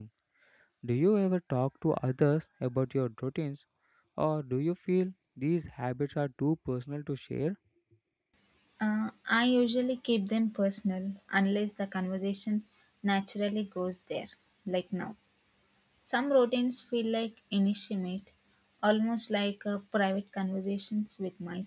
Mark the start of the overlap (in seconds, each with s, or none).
none